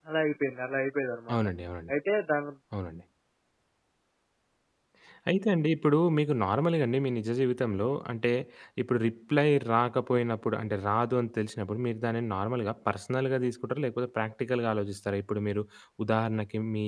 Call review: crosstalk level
none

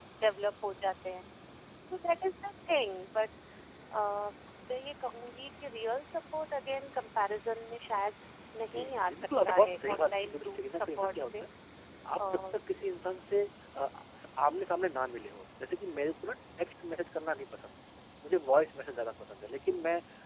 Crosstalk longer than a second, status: present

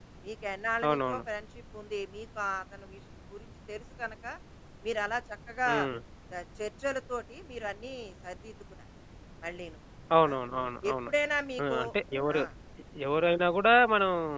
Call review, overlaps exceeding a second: none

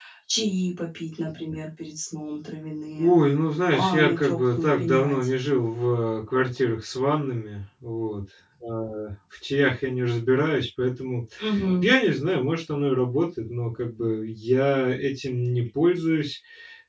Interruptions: present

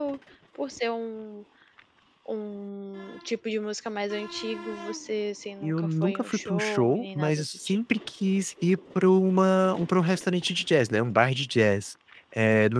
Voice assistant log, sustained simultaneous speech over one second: present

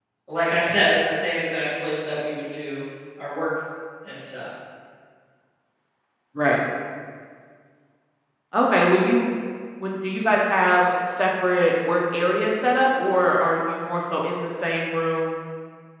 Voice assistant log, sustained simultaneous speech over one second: none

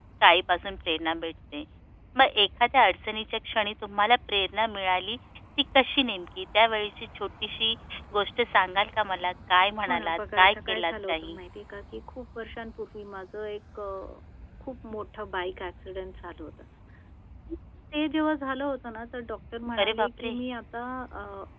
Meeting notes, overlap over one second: present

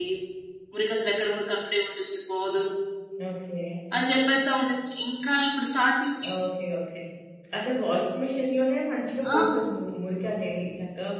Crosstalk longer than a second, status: none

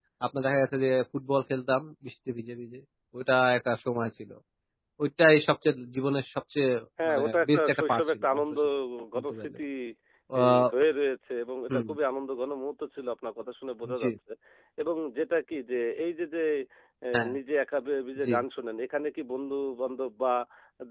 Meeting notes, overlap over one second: present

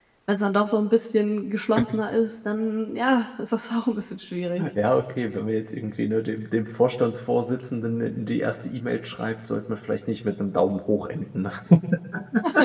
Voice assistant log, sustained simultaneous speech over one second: none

